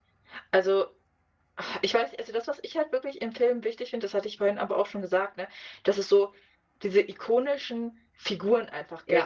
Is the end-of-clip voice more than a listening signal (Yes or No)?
No